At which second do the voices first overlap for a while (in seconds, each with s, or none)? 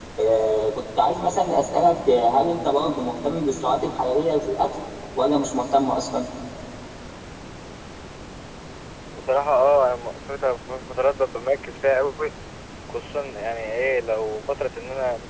none